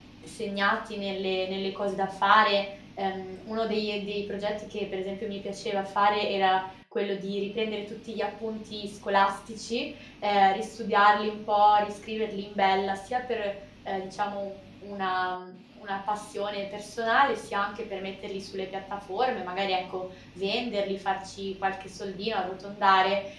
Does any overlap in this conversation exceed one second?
No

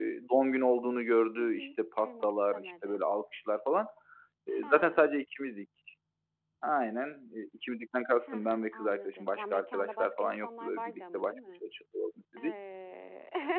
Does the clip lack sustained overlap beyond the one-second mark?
No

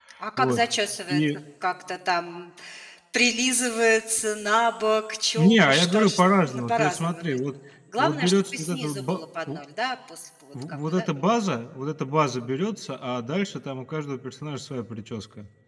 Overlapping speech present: Yes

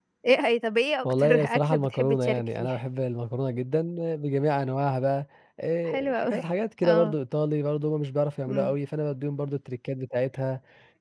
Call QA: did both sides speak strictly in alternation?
No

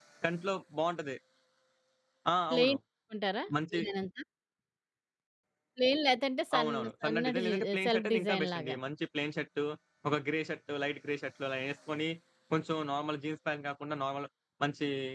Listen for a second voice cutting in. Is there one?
Yes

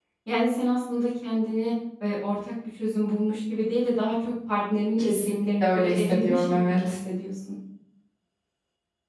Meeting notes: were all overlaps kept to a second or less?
No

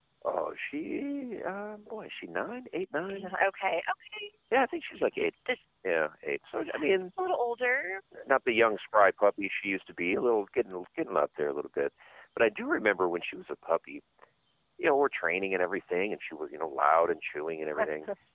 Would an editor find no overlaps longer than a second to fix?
Yes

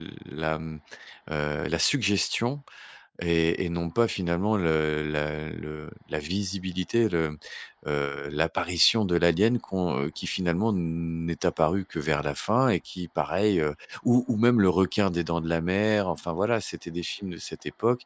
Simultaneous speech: No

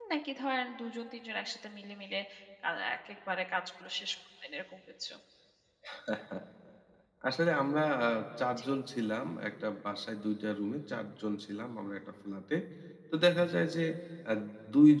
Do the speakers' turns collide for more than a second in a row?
No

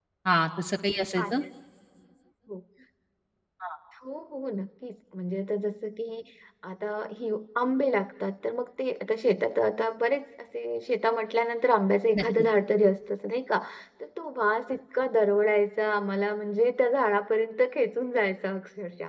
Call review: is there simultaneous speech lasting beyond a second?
No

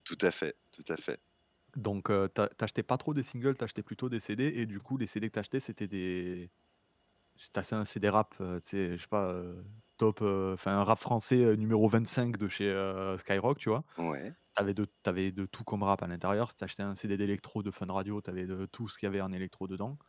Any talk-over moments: No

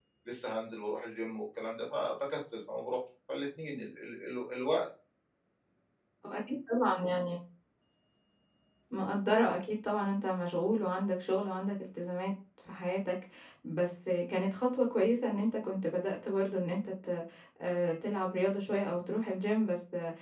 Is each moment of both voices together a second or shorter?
Yes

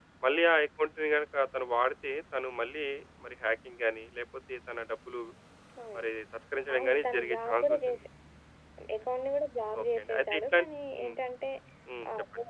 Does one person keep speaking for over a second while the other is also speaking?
Yes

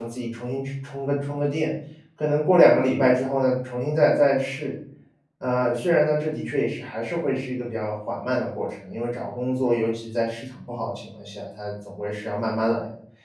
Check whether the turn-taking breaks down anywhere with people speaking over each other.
No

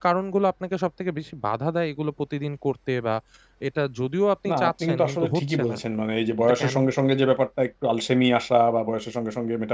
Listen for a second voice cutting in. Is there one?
Yes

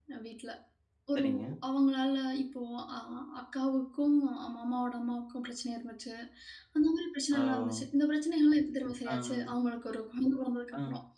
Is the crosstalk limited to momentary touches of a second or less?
Yes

